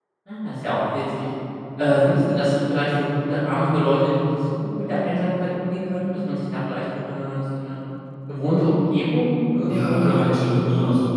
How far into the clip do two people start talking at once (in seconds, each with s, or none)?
9.6 s